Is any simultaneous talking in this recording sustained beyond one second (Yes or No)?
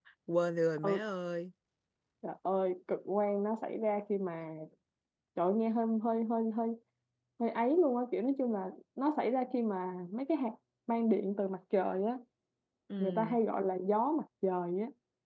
No